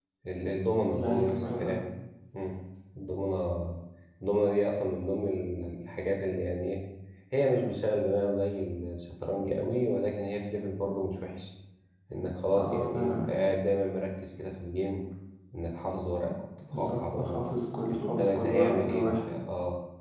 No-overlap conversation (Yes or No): No